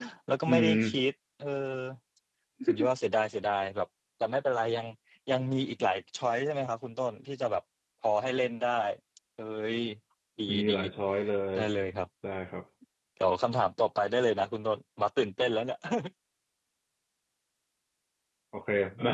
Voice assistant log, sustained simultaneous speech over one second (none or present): none